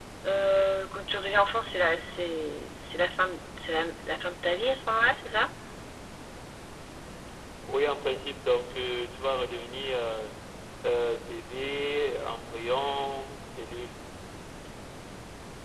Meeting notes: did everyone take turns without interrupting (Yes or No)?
Yes